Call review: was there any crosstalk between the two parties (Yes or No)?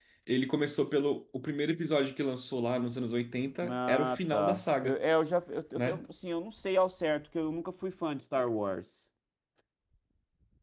Yes